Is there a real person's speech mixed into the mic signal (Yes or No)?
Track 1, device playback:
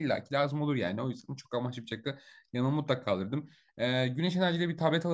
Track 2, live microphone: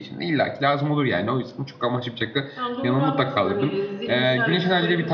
Yes